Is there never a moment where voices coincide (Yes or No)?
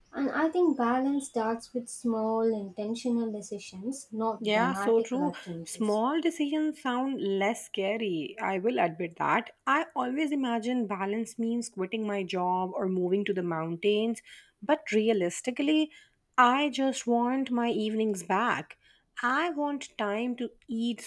No